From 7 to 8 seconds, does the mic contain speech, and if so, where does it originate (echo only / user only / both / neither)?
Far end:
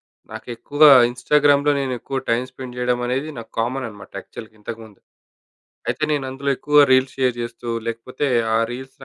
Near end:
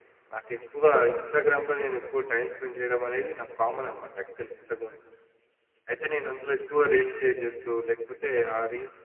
echo only